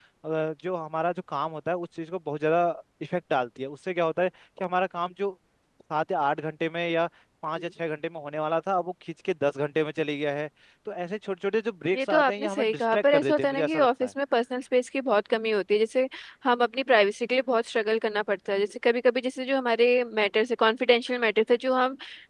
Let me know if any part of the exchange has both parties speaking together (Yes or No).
Yes